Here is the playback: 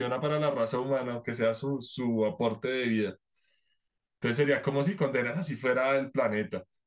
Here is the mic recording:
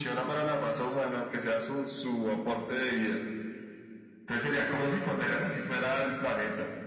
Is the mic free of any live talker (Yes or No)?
Yes